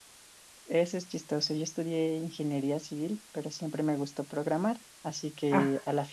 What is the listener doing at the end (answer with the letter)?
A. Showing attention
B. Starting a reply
A